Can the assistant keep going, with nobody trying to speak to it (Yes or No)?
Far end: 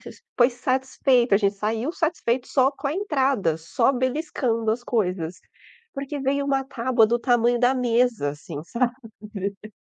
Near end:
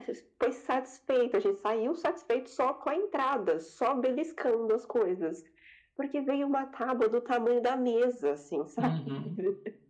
No